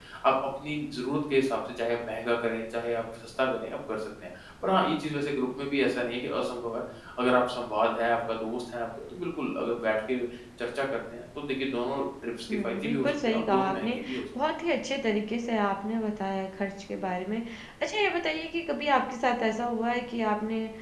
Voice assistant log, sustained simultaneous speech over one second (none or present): present